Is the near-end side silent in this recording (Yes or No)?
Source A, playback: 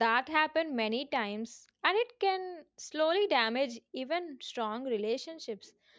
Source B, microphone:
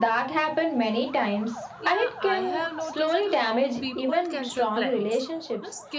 No